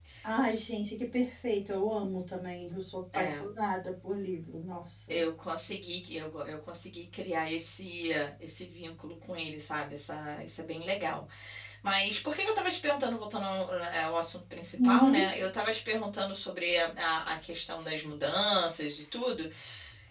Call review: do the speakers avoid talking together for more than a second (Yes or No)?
Yes